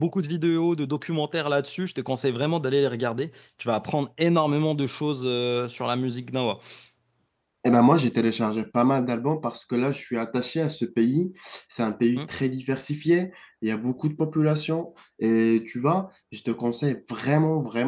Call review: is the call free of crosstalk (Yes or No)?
Yes